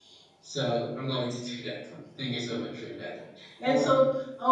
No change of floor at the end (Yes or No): Yes